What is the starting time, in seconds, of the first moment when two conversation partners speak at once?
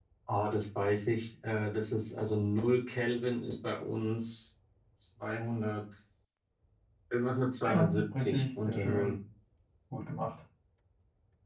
7.6 s

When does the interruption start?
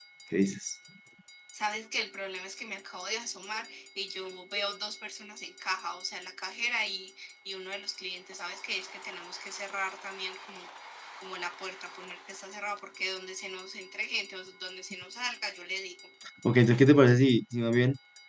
none

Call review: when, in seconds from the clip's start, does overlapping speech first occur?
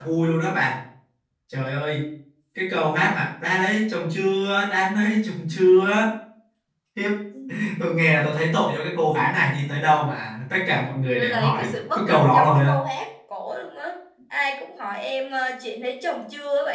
11.2 s

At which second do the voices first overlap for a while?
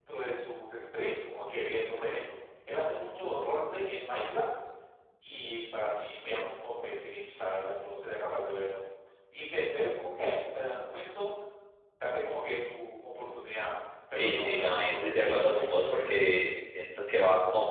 14.1 s

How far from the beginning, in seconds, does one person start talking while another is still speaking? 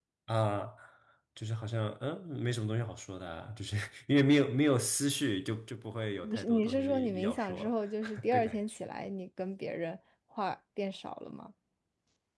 6.2 s

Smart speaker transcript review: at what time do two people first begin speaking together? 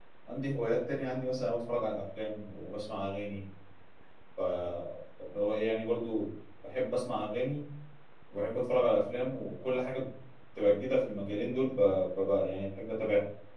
none

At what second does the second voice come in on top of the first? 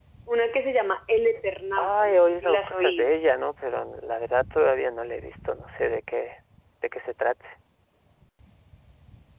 1.8 s

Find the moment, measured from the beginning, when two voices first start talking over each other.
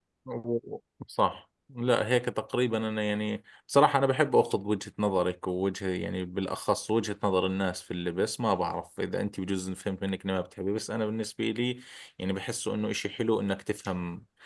none

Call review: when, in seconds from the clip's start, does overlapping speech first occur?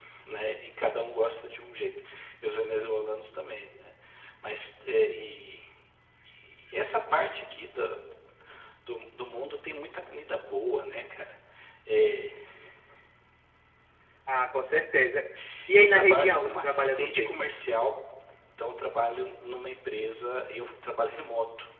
15.8 s

